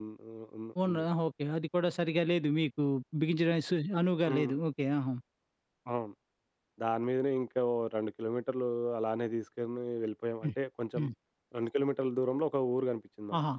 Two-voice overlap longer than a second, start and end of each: none

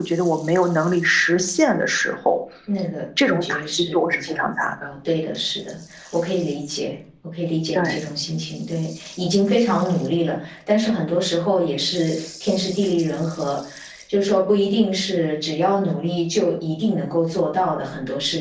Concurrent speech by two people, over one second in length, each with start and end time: 3.2-4.7

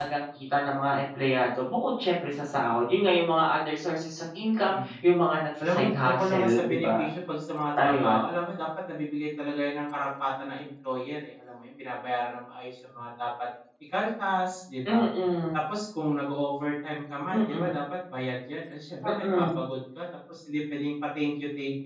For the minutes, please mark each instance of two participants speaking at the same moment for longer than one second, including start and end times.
5.6-7.0

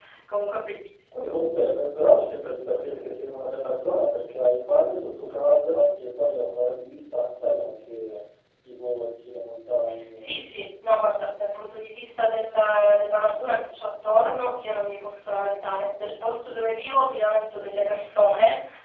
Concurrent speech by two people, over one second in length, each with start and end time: none

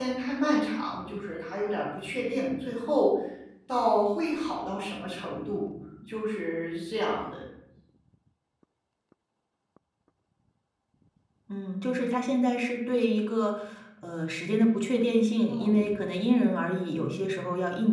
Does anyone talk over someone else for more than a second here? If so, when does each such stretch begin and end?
none

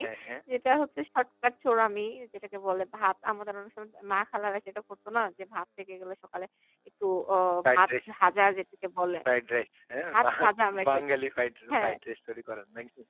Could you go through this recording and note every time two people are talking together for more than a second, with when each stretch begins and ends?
none

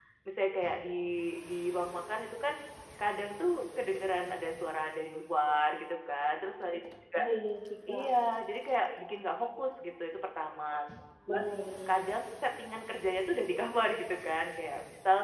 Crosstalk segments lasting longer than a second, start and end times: none

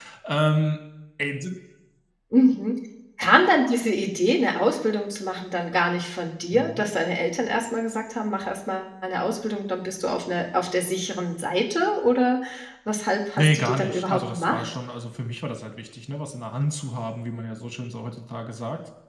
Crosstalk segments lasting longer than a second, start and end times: 13.4-14.7

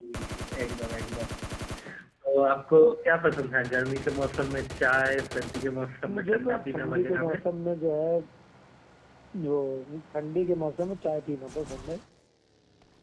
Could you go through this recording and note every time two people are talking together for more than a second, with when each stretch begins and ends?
6.1-7.4

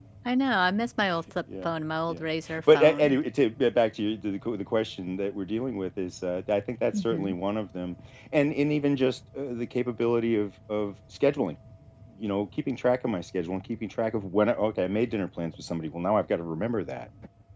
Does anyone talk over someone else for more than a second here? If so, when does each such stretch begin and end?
none

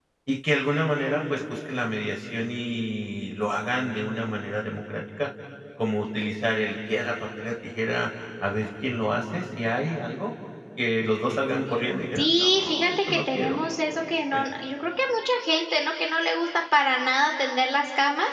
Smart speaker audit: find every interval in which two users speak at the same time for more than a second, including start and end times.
12.2-13.6

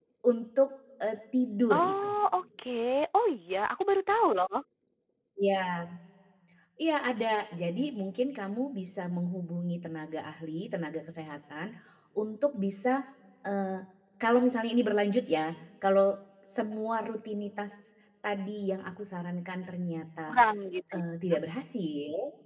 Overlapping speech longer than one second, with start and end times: none

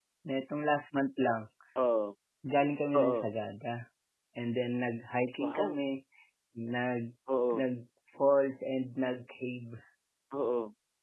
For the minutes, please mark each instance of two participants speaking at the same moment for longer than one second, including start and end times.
none

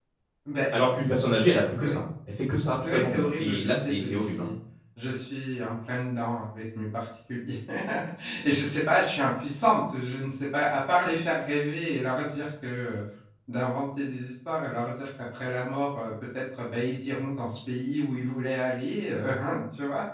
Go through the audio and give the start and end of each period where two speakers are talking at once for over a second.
2.8-4.5

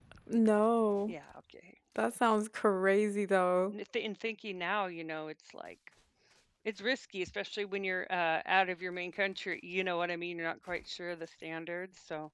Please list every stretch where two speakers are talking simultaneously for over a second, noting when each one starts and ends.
none

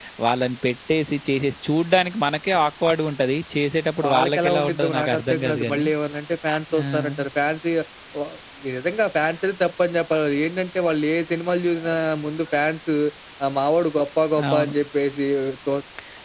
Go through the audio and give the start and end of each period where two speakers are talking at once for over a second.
4.0-5.9

